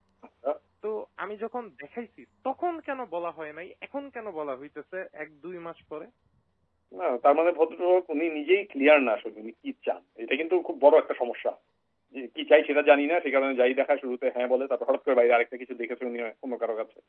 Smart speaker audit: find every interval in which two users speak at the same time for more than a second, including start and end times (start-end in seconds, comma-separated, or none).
none